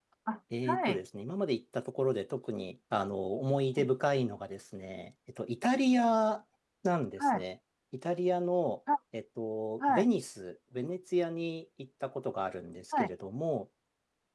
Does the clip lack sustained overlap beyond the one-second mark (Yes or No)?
Yes